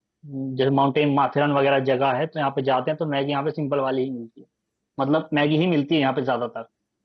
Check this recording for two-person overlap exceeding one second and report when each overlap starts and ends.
none

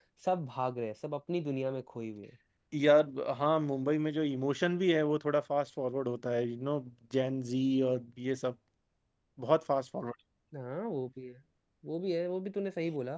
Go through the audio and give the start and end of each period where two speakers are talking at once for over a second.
none

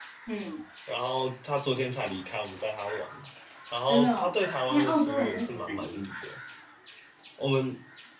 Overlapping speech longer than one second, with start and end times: 3.9-6.0

